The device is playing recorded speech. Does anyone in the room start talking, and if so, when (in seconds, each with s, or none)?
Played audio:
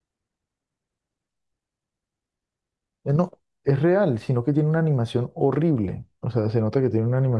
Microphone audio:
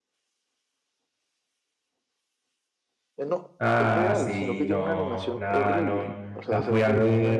3.6 s